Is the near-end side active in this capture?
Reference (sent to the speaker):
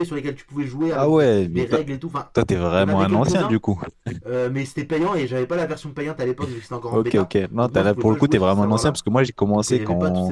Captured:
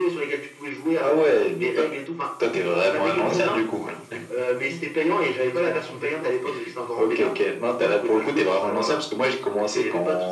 Yes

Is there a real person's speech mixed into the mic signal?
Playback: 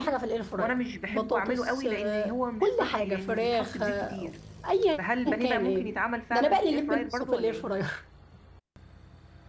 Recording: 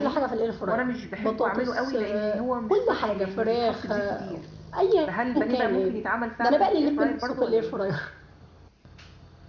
No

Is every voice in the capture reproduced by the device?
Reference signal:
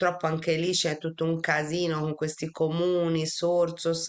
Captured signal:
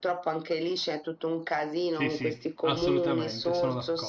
No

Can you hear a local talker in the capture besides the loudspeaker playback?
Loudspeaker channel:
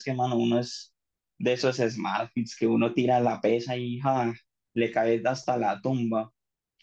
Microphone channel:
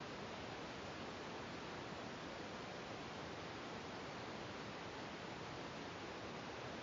No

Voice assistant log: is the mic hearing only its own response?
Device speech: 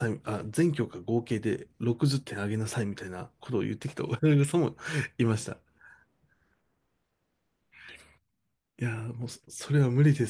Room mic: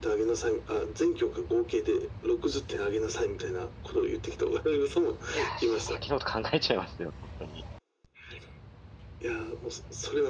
No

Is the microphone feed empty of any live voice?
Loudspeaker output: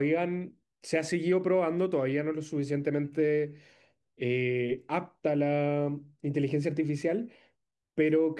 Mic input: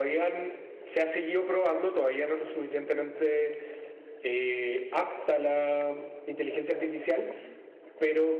Yes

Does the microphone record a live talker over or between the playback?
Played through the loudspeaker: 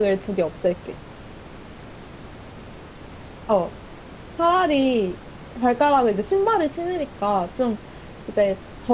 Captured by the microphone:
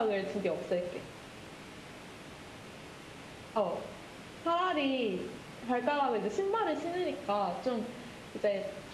No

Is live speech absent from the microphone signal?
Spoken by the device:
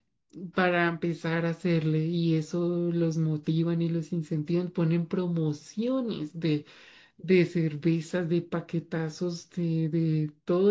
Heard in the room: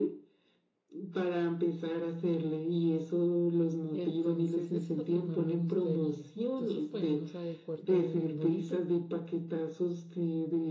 No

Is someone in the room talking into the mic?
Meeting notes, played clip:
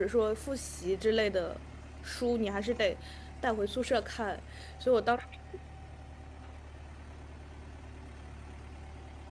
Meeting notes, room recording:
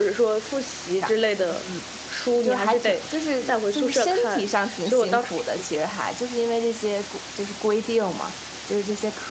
Yes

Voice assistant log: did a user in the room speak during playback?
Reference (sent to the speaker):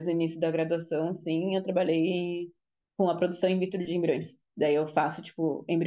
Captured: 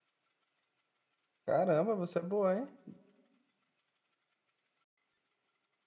Yes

